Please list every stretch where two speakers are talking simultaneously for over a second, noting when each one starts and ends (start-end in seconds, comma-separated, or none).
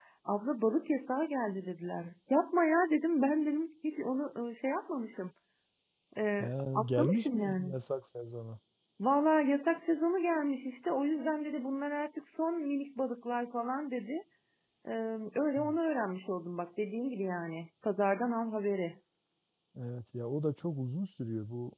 6.4-7.7